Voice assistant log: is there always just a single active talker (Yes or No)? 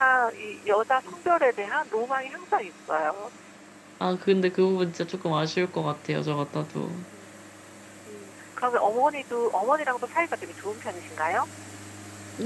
Yes